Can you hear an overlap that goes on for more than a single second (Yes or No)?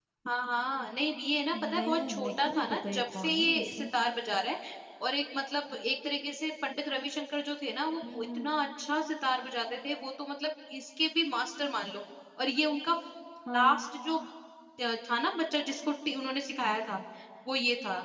Yes